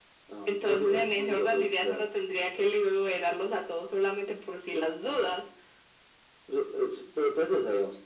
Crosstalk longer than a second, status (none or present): present